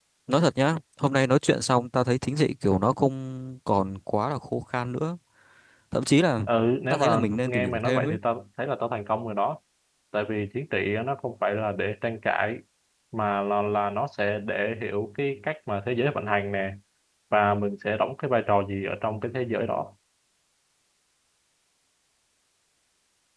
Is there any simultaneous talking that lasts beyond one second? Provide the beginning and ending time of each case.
6.9-8.2

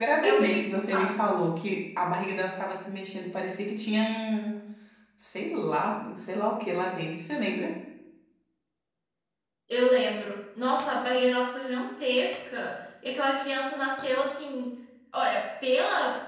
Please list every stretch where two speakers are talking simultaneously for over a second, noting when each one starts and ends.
none

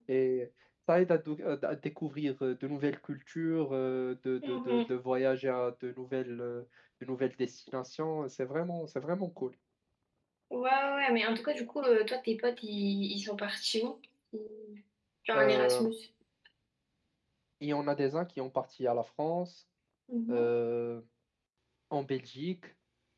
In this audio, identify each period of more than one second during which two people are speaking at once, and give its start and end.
none

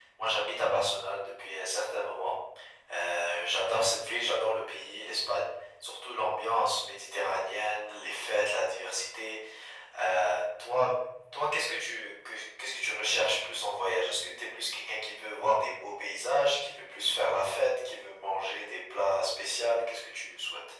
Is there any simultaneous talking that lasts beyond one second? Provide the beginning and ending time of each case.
none

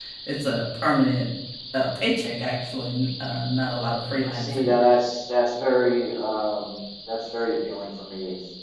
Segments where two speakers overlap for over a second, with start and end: none

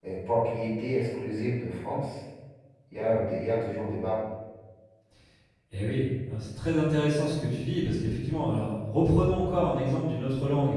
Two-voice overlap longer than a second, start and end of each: none

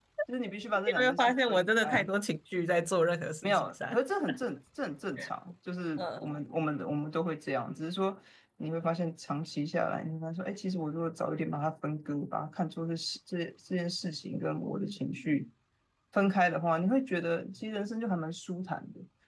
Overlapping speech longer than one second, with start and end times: 0.9-2.1

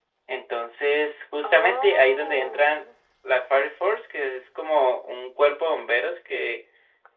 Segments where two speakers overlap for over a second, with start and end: 1.4-2.8

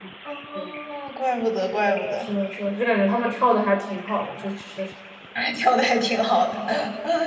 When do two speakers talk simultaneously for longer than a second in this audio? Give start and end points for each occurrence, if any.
none

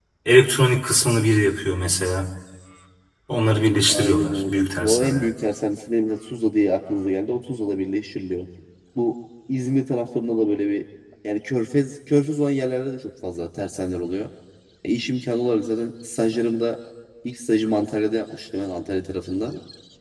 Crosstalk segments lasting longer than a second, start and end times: 3.5-5.3

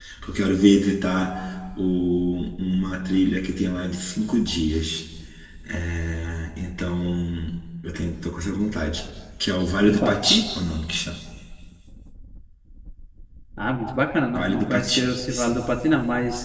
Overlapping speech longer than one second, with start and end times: 14.3-15.6

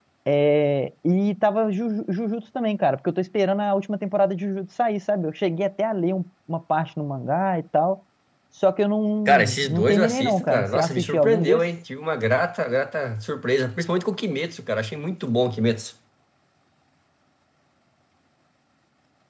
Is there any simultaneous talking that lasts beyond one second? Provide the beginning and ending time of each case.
9.2-11.6

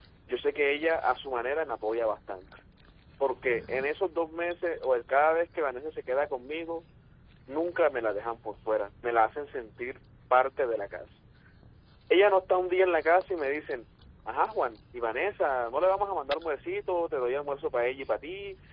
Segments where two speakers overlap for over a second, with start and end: none

